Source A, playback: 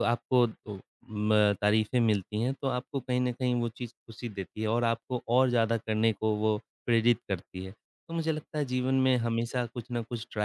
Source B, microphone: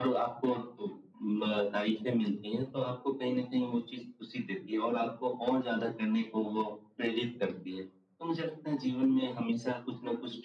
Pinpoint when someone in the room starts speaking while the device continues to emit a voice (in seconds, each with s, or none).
none